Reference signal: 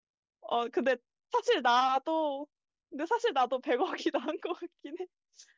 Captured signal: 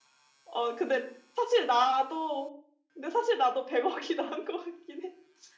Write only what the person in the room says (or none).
none